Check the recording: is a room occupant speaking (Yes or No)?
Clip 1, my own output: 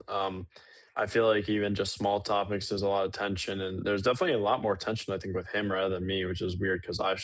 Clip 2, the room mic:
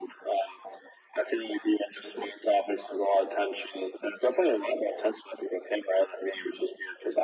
No